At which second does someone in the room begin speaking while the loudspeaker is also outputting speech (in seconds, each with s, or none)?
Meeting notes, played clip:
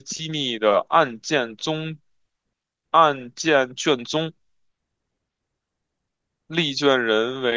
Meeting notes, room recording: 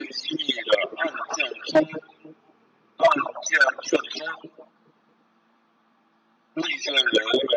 none